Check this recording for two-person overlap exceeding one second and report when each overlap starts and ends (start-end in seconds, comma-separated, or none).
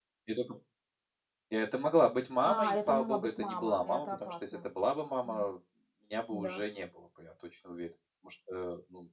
2.4-4.7